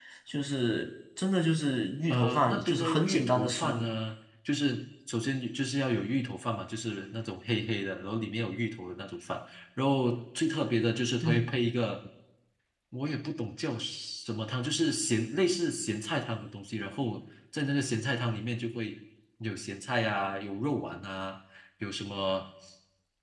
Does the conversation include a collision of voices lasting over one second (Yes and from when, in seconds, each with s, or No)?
Yes, from 2.1 s